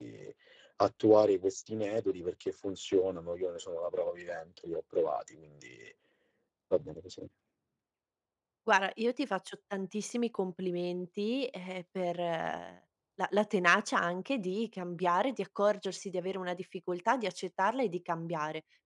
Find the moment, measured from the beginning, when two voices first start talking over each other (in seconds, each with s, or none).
none